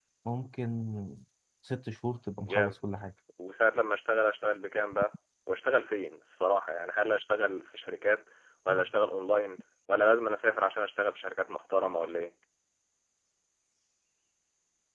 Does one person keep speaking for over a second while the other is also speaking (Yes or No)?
No